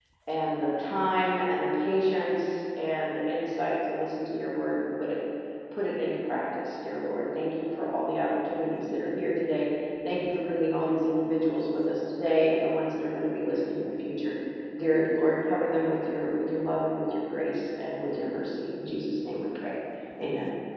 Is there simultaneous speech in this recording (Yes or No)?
No